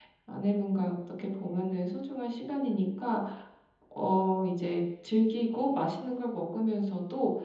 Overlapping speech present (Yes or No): No